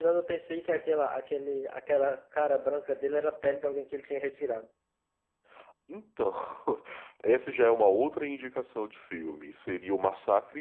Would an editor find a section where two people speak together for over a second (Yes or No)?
No